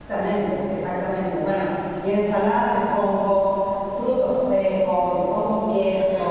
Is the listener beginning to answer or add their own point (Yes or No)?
No